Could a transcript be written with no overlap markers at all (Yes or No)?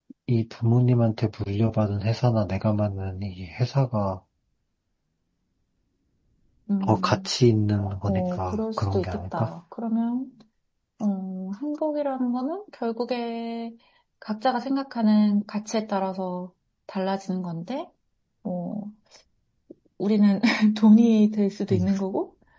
No